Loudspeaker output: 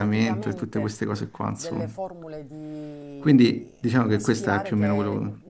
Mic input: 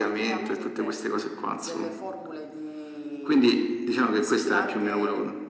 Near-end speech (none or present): none